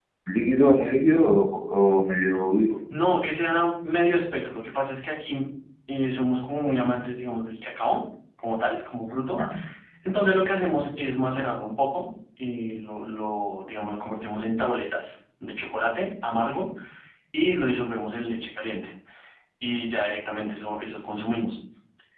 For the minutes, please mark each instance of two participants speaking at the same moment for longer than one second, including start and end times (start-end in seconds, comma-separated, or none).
none